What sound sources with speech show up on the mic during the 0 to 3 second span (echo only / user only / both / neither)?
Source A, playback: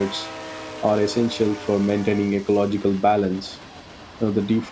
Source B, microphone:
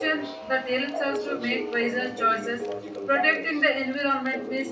both